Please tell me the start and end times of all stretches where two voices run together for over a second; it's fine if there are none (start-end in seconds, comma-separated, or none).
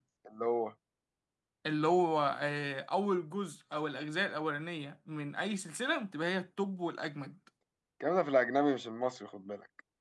none